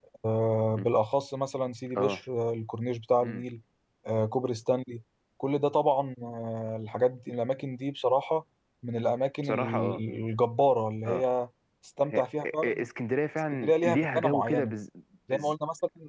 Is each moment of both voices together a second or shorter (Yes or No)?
No